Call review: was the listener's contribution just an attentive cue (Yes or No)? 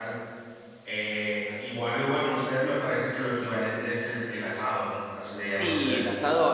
No